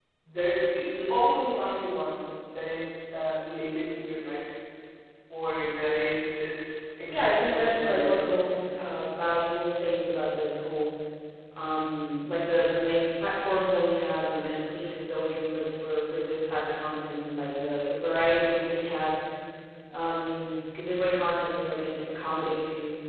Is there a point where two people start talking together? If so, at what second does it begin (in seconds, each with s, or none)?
7.1 s